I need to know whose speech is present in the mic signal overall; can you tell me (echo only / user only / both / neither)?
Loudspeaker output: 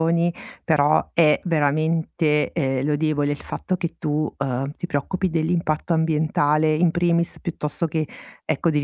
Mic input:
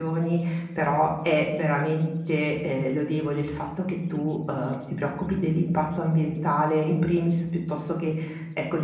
echo only